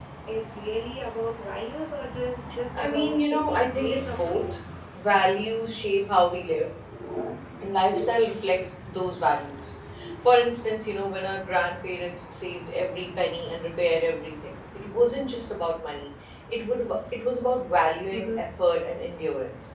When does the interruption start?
2.7 s

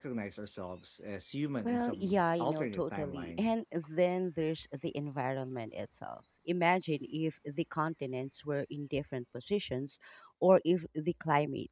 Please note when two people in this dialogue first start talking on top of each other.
1.6 s

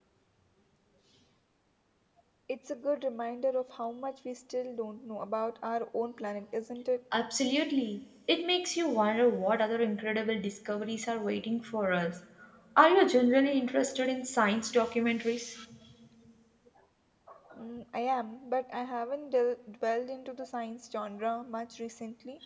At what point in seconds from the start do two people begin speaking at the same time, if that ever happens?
none

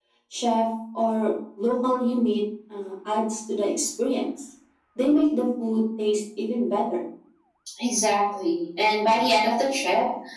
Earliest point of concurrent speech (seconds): none

